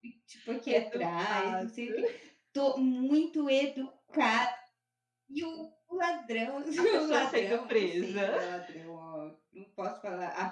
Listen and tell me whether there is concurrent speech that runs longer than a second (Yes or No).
Yes